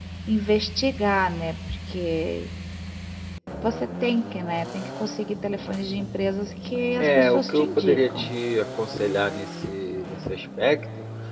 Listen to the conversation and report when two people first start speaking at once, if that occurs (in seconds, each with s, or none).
7.0 s